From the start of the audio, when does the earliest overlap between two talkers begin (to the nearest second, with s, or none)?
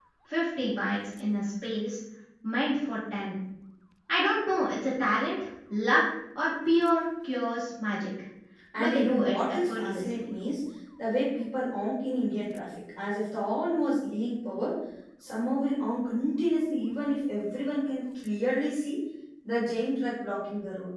9 s